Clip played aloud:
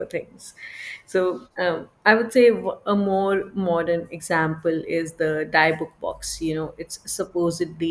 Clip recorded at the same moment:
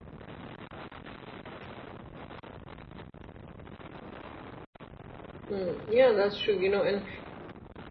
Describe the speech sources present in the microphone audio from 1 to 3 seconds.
neither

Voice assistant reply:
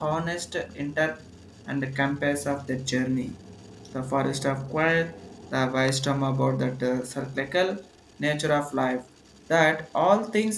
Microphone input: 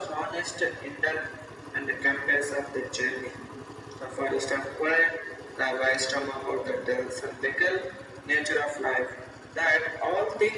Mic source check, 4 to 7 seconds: echo only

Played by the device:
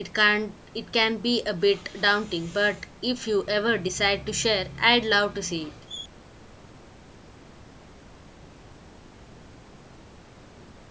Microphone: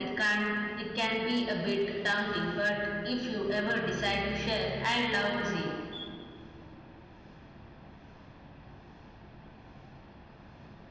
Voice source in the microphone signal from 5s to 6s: echo only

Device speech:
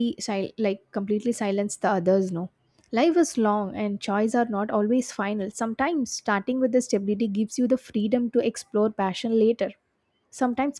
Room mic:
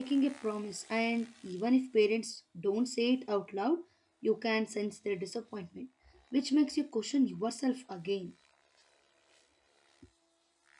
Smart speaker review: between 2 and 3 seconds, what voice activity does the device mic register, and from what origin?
user only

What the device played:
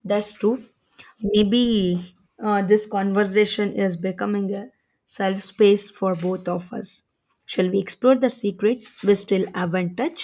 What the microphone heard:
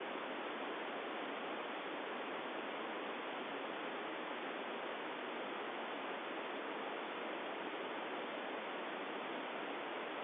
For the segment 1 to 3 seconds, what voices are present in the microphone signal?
neither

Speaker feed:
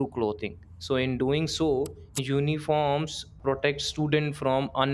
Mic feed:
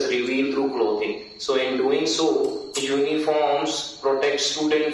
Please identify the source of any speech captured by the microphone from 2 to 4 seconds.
echo only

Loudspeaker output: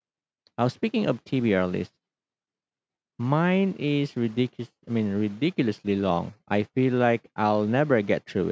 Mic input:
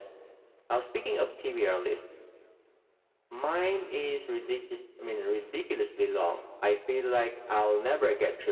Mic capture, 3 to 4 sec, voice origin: echo only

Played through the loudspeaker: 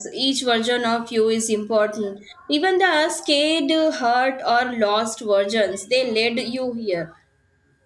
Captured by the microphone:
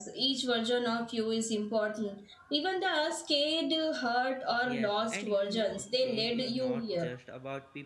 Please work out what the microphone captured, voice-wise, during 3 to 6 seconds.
both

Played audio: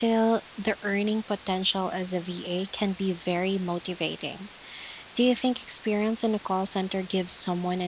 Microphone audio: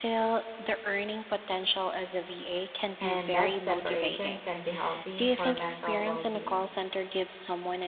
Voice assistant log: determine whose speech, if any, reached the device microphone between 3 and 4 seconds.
both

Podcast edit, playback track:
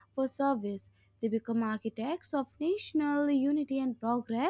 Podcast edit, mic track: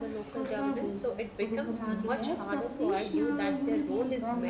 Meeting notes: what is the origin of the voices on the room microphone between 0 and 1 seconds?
both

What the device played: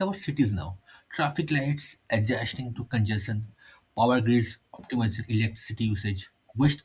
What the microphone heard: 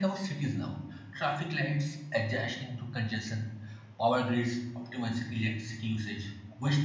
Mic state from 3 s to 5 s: echo only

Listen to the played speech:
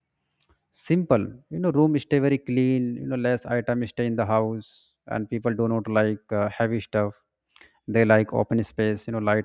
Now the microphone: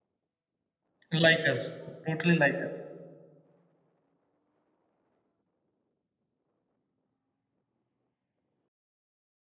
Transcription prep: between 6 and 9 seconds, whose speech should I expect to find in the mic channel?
neither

